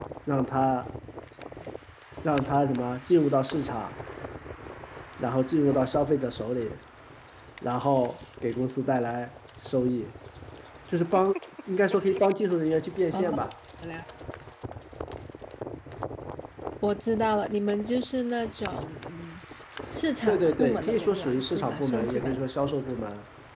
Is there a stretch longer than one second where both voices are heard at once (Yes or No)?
Yes